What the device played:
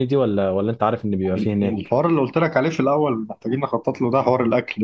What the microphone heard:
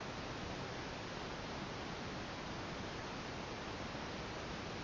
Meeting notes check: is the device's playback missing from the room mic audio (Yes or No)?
Yes